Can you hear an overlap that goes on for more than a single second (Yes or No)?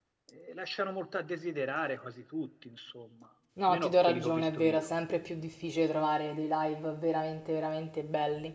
Yes